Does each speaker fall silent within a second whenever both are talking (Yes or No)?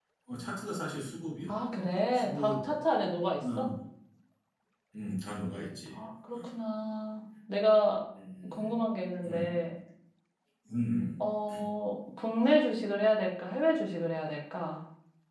Yes